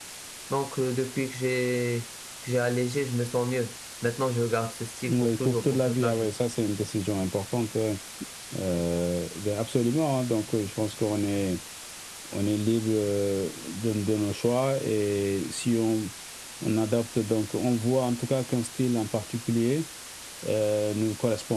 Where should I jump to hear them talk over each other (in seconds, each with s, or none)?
5.1 s